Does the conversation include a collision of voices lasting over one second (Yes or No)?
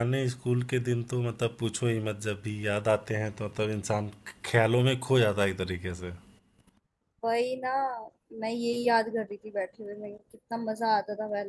No